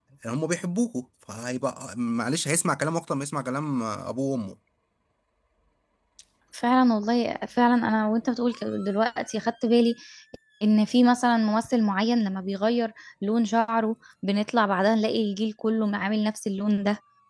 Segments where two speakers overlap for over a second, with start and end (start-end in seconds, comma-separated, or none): none